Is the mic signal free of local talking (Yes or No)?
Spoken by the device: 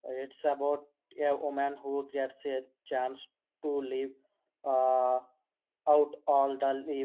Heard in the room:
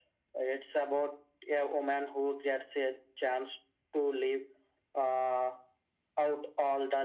Yes